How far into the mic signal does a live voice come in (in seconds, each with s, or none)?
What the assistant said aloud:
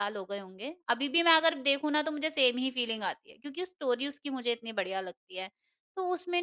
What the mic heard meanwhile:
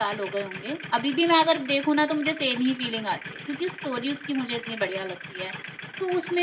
none